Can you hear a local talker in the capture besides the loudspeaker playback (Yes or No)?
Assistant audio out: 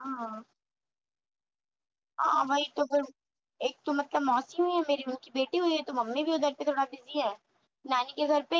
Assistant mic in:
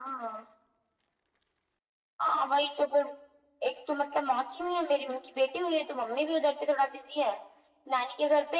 No